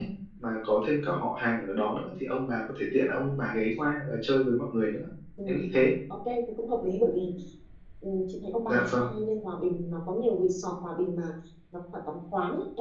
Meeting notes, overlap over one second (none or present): none